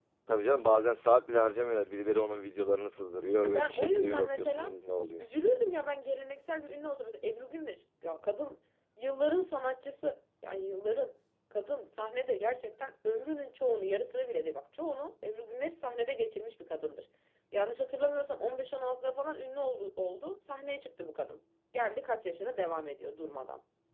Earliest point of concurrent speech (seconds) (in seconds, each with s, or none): 3.3 s